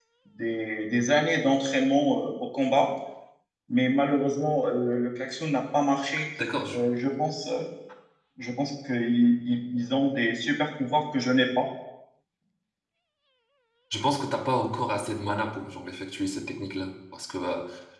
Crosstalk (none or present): none